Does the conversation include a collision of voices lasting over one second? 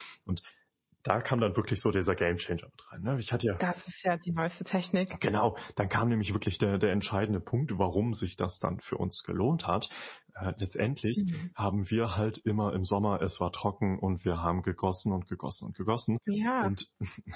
No

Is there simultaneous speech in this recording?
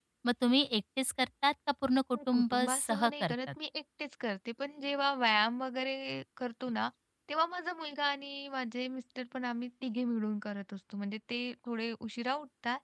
Yes, from 2.1 s

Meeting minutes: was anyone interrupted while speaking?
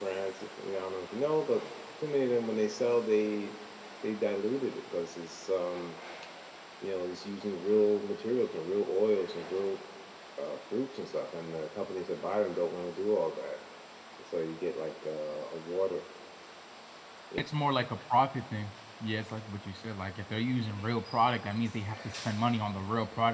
No

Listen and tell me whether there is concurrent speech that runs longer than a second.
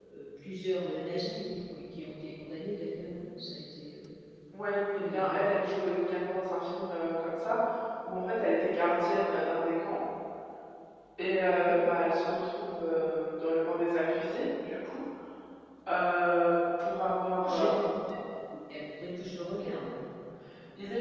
No

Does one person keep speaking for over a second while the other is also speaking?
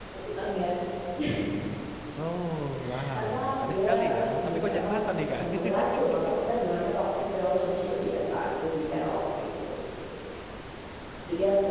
Yes, from 2.9 s

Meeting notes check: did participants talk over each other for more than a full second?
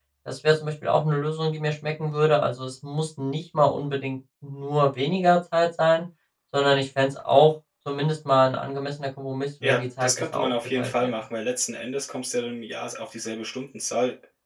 Yes, from 9.6 s

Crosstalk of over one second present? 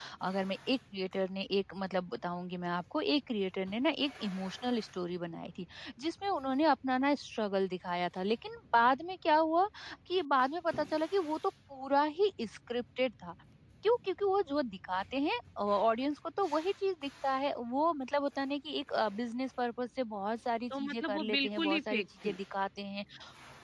Yes, from 20.7 s

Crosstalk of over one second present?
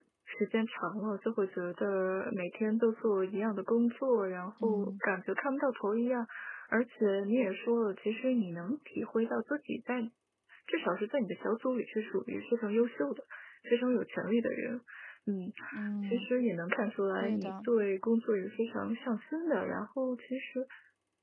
No

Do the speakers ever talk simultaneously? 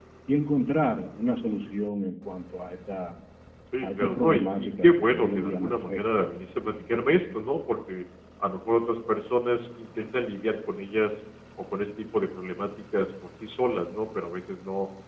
Yes, from 3.8 s

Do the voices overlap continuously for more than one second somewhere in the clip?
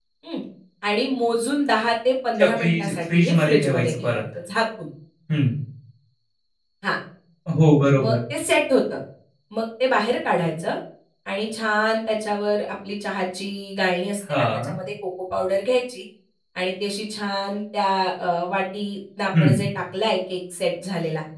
Yes, from 2.4 s

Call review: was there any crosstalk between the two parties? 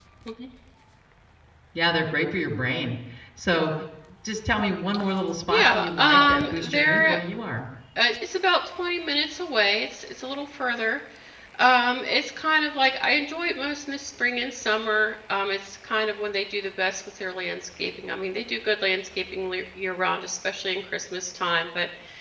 Yes, from 5.5 s

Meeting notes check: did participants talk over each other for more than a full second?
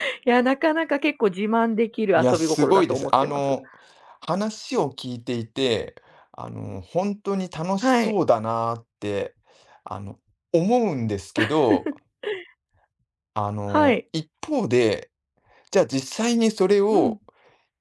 Yes, from 2.2 s

